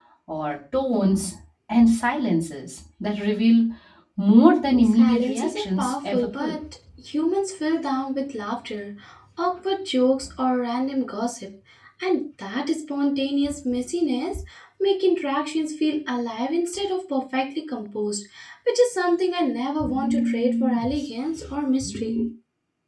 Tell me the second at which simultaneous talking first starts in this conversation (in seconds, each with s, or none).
4.8 s